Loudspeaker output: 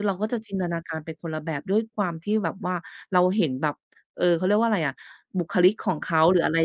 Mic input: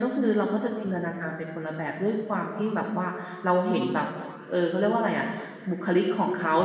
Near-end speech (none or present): none